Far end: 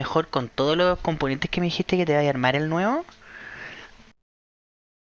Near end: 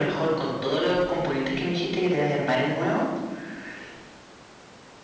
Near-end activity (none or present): none